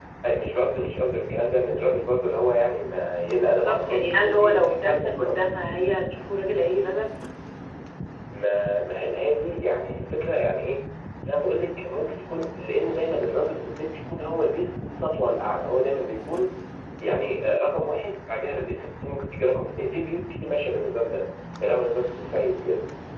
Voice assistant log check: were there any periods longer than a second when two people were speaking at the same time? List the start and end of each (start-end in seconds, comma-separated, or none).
3.5-5.3